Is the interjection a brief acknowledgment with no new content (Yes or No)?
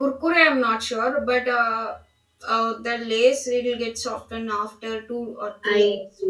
No